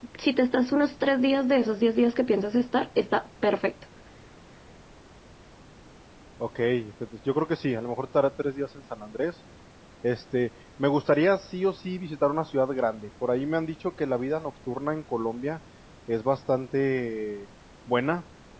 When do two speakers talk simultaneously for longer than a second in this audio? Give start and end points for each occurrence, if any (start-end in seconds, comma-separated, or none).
none